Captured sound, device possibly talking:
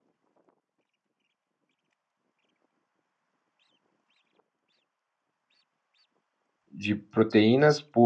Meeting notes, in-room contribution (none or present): present